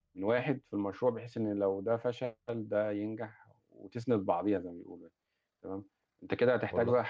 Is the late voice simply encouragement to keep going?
Yes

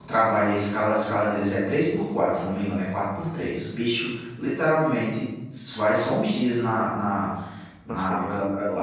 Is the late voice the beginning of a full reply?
No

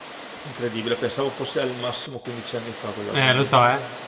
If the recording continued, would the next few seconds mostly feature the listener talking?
Yes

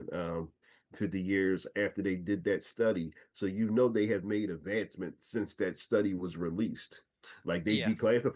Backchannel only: Yes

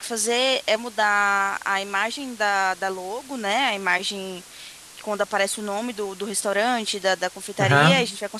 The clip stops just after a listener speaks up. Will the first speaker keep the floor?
Yes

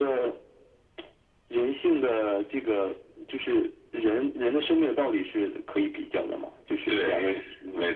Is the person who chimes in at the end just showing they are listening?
No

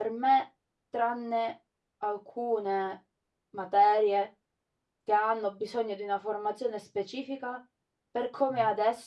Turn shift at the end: No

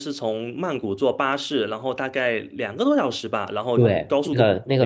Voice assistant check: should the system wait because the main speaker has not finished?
No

